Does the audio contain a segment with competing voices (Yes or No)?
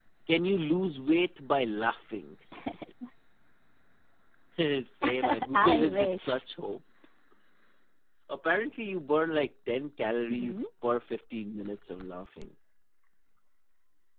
Yes